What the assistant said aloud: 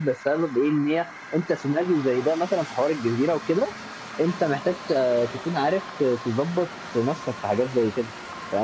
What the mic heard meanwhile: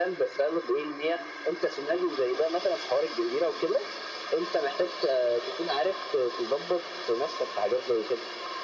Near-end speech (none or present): none